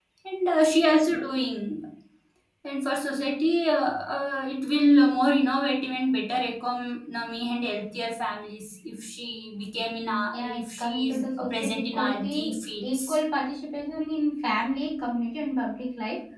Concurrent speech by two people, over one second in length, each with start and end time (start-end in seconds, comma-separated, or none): 10.3-13.2